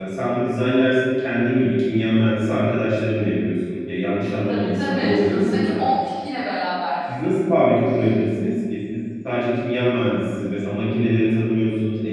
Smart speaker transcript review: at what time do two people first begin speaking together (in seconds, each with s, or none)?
4.5 s